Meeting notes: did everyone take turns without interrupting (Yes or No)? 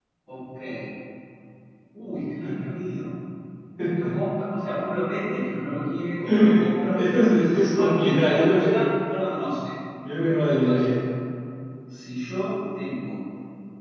No